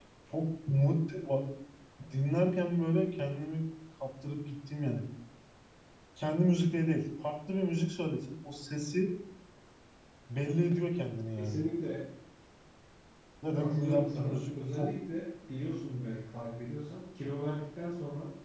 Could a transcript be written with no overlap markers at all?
No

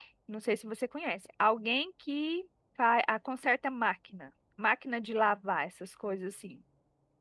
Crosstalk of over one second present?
No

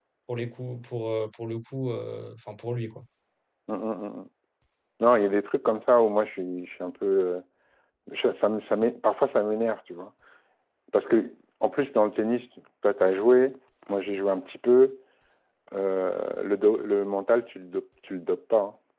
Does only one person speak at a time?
Yes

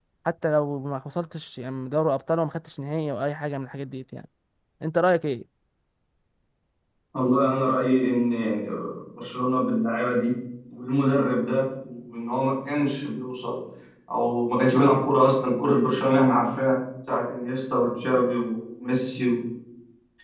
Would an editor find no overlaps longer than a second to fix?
Yes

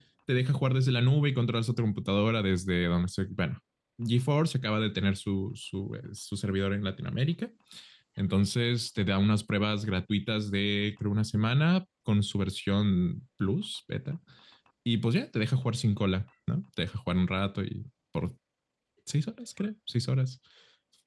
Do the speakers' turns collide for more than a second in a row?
No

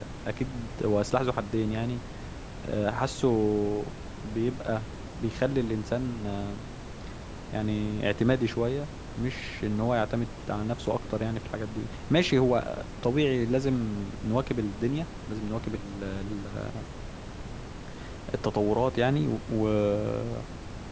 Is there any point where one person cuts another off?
No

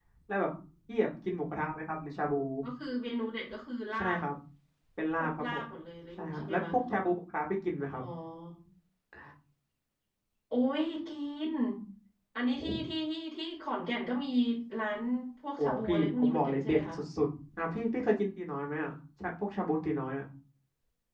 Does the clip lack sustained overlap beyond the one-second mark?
No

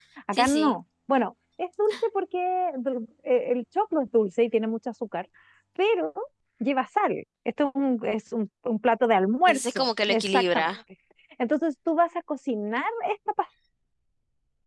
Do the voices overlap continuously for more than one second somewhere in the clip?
Yes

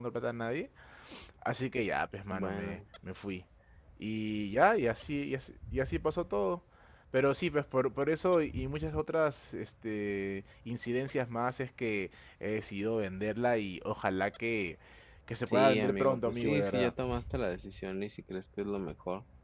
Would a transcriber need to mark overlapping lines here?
Yes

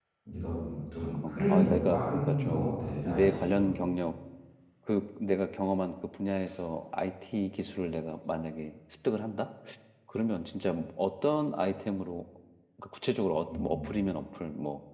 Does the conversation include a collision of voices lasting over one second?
Yes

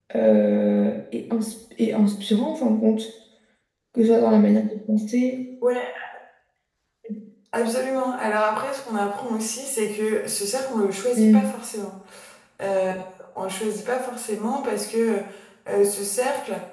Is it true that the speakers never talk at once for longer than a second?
Yes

